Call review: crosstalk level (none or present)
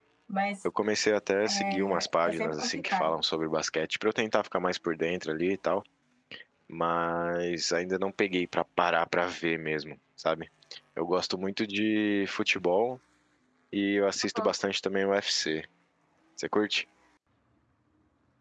present